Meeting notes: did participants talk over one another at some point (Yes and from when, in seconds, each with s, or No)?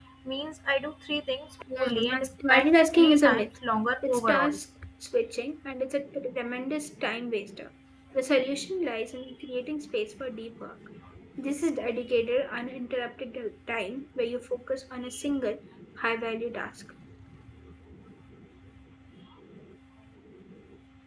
Yes, from 1.8 s